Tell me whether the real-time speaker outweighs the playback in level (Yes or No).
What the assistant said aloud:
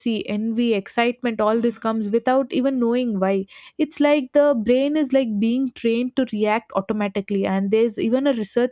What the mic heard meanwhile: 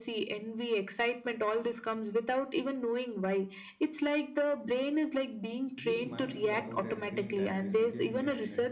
No